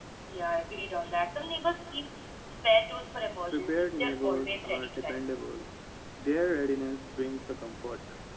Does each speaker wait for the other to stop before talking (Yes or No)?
No